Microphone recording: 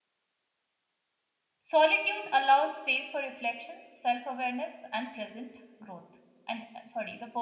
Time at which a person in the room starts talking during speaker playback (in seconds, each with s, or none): 1.6 s